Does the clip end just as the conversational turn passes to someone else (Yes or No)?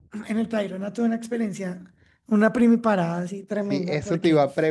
Yes